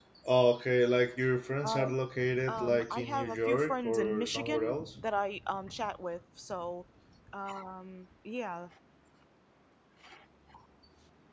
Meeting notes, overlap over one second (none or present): present